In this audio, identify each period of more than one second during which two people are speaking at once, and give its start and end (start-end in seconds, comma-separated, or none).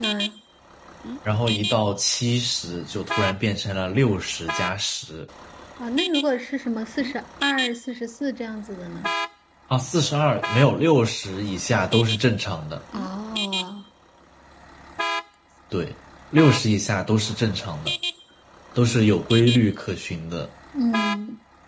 none